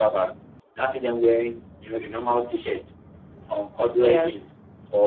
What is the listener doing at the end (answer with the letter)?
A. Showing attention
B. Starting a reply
A